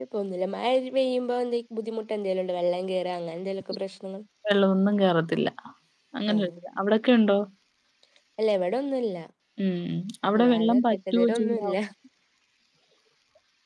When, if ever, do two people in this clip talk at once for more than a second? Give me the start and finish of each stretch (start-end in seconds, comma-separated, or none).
10.4-11.7